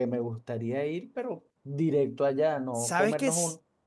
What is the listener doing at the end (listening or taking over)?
taking over